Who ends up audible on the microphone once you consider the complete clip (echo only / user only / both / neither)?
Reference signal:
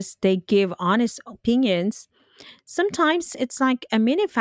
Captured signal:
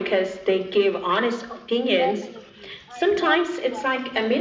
both